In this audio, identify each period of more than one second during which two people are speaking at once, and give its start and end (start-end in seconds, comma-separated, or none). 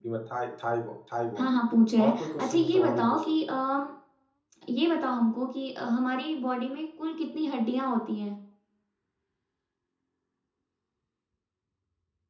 2.0-3.3